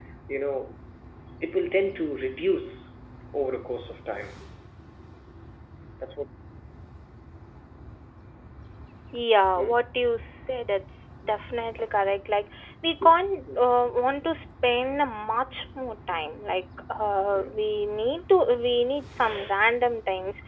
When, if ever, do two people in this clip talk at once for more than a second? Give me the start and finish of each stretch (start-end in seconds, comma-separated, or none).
none